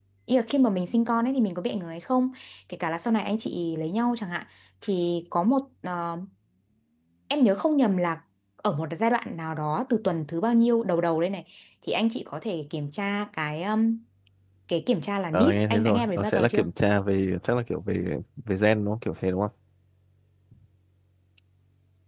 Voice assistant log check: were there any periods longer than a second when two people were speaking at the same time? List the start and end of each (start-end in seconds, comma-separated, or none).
15.3-16.7